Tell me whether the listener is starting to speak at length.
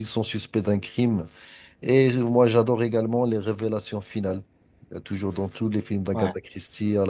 No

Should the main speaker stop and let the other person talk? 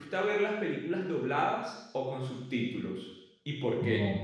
Yes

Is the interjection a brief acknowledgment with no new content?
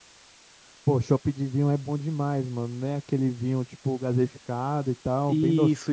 No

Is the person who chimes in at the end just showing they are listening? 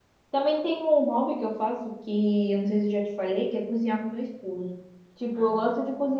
Yes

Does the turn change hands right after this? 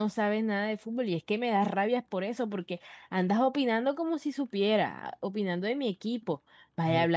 No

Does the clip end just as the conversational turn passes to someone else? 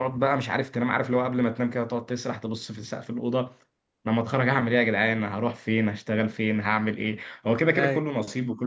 No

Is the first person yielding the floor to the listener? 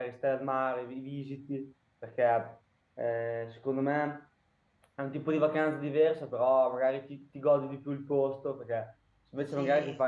No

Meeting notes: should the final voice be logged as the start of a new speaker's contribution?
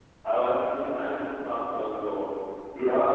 Yes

